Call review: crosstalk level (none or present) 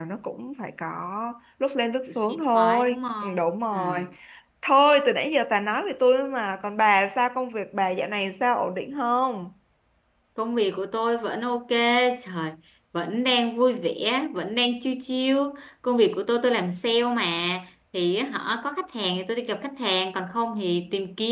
present